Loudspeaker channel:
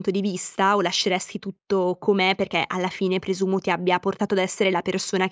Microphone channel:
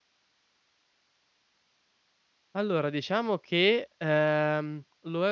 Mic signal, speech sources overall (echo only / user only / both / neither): user only